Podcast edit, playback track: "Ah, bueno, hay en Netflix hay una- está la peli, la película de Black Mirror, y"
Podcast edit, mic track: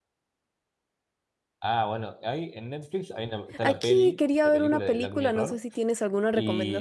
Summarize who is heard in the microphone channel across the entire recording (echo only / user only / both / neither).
both